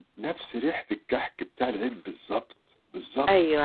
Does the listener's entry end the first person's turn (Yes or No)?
Yes